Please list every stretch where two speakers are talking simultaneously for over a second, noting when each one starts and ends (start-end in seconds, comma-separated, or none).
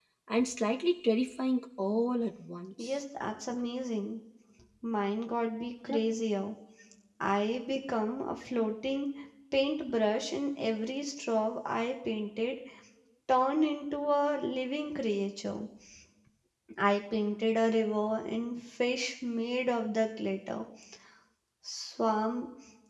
none